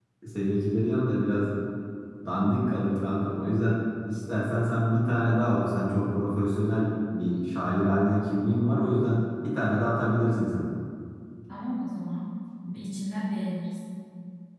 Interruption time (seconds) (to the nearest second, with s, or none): none